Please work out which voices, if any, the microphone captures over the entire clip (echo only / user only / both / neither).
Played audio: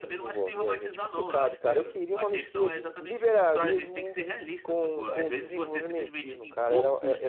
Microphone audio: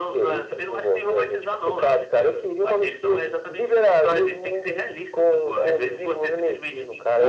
echo only